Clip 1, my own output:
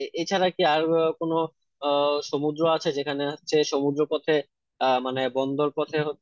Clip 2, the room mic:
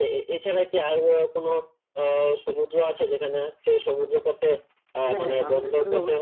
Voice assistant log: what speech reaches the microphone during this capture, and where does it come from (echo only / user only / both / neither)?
both